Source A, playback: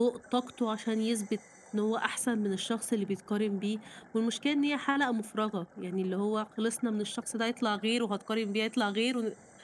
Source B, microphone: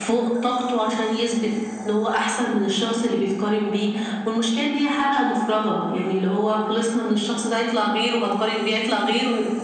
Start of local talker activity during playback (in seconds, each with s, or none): none